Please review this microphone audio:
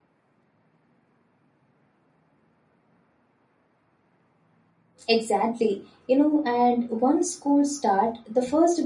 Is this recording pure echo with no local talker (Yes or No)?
No